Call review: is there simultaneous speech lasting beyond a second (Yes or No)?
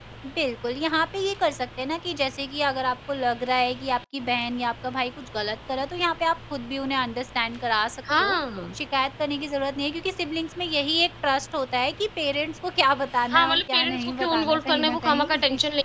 Yes